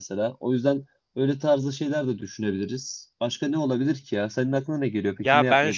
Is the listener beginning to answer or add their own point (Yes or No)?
Yes